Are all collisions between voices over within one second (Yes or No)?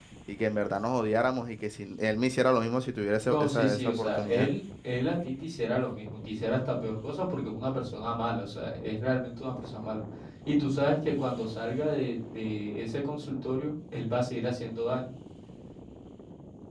No